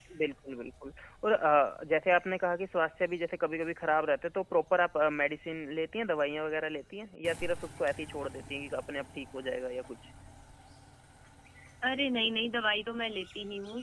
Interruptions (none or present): none